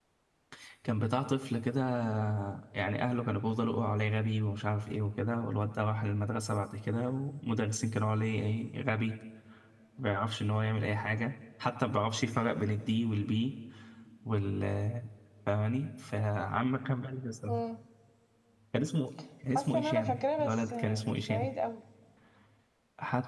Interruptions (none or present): present